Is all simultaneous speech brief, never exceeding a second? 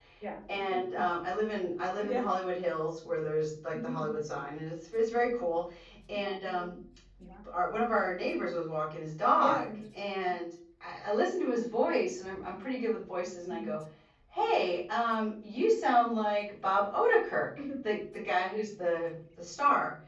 Yes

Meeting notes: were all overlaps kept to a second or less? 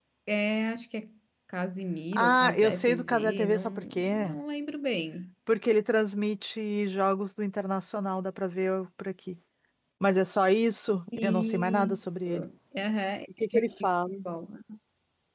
No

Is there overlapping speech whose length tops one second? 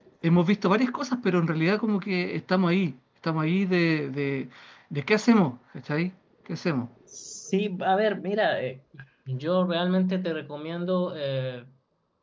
No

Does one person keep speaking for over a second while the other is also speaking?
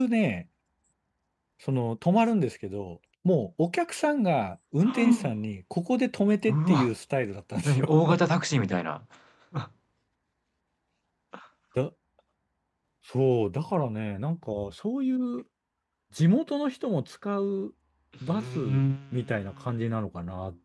No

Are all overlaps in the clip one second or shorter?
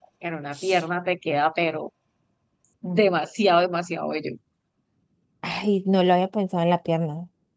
Yes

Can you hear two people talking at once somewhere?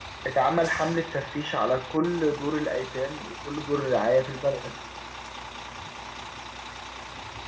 No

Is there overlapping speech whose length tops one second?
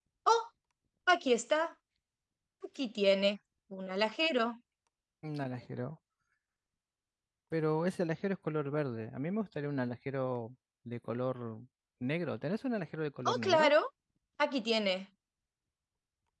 No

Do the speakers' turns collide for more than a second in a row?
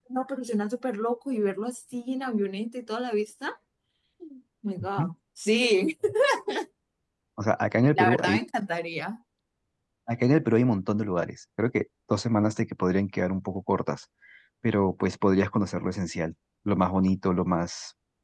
No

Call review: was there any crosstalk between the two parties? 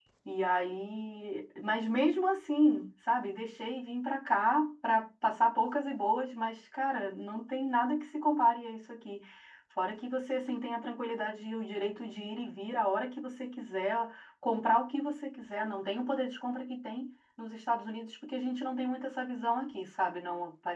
No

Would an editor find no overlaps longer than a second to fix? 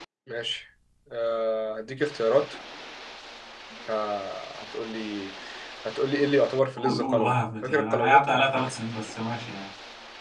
No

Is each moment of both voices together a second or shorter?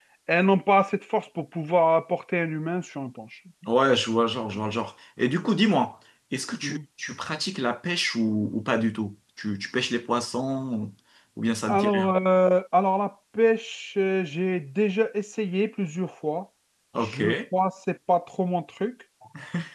Yes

